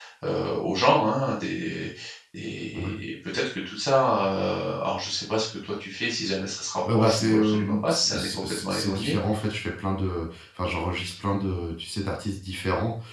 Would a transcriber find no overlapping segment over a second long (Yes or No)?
No